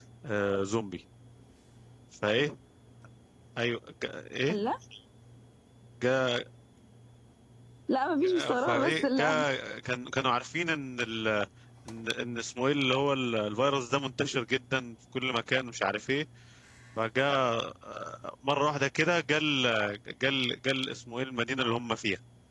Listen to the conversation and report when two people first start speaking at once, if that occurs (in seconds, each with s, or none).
8.2 s